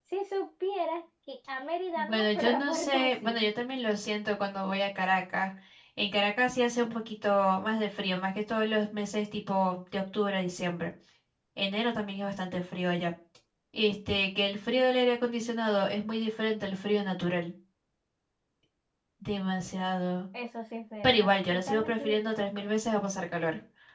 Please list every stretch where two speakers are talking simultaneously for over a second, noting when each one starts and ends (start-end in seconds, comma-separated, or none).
2.0-3.4, 21.0-22.8